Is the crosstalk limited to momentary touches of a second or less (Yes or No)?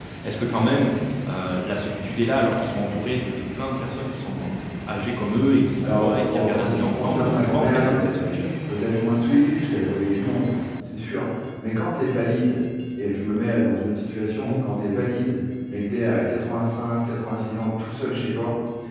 No